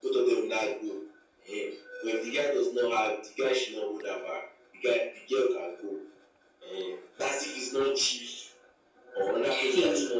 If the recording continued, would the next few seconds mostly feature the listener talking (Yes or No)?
No